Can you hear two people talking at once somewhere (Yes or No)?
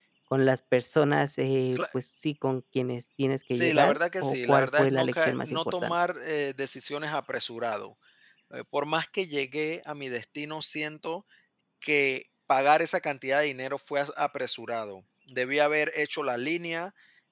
Yes